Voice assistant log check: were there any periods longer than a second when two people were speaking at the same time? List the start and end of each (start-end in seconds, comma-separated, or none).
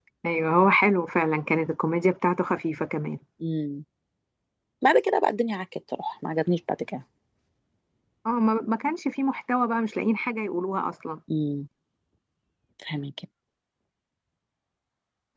none